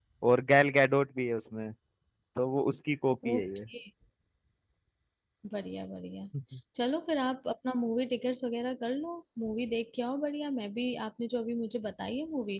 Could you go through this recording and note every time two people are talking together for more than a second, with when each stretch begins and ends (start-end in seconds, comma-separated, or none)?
none